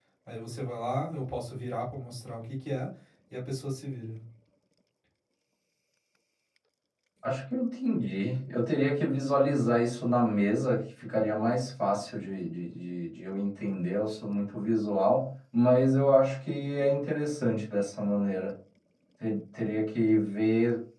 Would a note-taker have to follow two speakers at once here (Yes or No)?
No